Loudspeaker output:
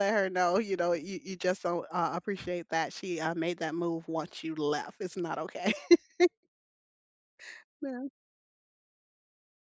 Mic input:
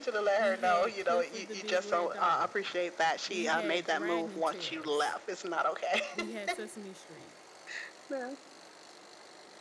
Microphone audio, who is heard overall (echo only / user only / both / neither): both